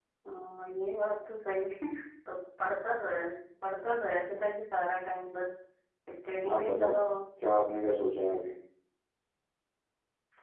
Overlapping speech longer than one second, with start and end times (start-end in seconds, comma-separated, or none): none